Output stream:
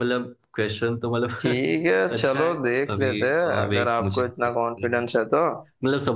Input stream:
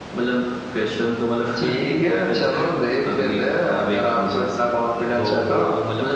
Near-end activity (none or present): present